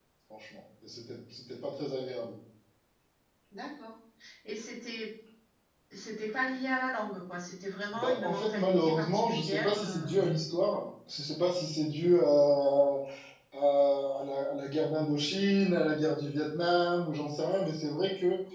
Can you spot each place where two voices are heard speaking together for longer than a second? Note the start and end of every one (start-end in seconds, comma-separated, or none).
7.9-10.1